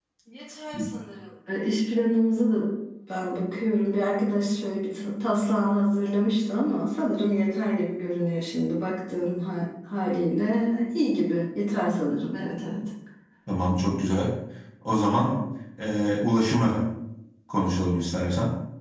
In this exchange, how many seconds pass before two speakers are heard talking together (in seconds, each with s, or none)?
none